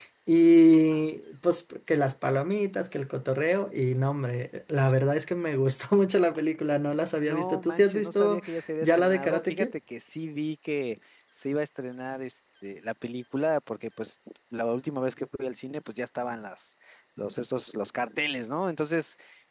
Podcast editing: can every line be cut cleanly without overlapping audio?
No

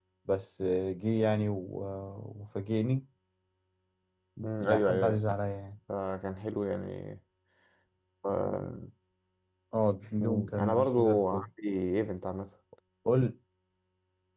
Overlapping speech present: Yes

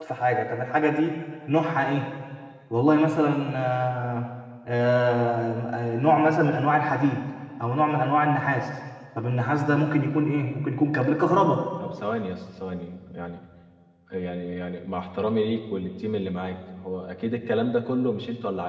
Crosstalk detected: No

